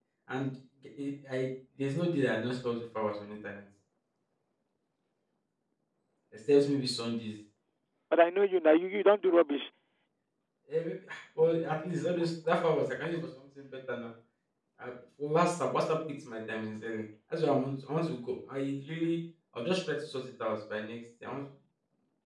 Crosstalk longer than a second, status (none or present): none